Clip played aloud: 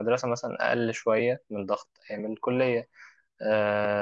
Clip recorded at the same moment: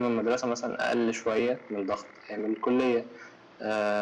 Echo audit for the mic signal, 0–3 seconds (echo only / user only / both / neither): echo only